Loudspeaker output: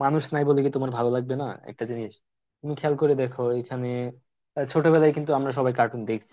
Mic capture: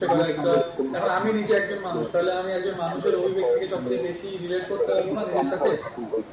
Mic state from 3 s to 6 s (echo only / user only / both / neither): both